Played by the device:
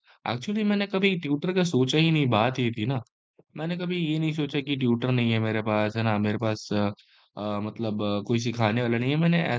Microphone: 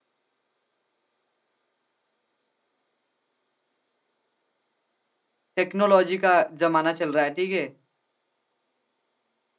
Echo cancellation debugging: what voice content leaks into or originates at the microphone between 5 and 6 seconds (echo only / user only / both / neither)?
user only